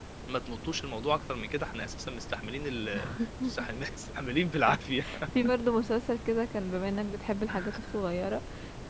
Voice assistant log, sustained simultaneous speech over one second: none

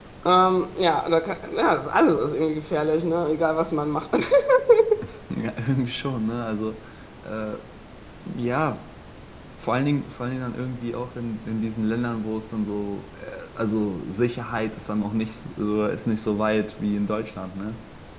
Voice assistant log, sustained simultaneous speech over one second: none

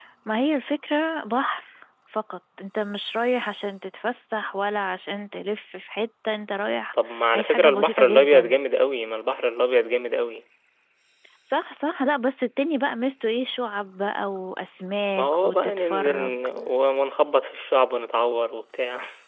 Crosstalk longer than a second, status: present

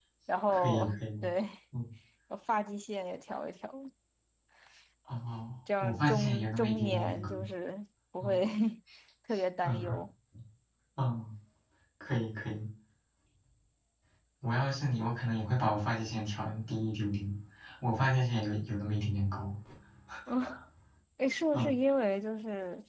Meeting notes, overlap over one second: present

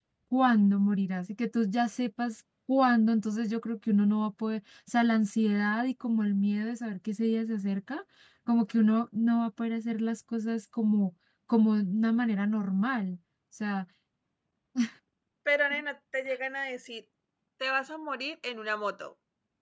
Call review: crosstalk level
none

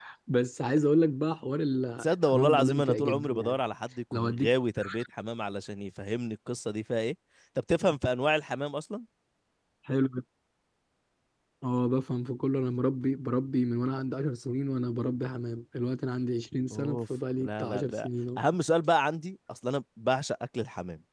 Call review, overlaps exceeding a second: present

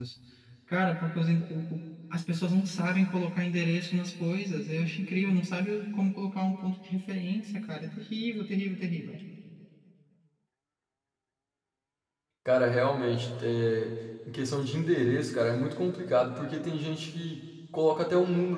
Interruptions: none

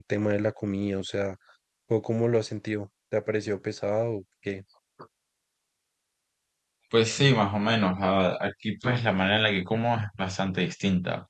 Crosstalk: none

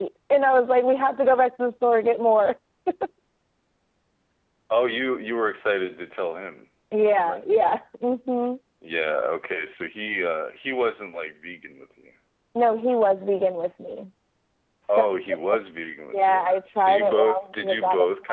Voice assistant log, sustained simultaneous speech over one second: present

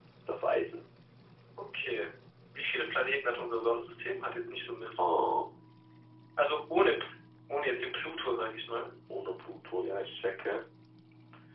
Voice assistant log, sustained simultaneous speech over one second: none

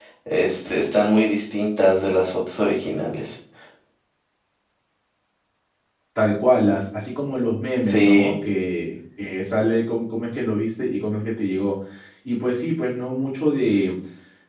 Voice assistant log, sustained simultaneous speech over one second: none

